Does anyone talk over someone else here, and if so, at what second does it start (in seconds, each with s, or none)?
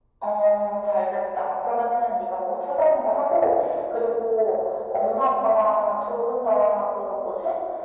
none